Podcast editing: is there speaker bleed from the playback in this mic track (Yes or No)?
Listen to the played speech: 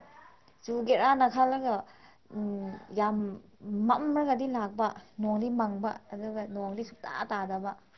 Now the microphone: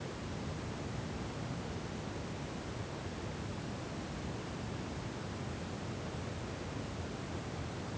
No